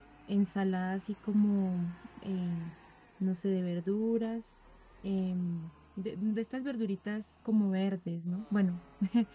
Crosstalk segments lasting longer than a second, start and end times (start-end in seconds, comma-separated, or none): none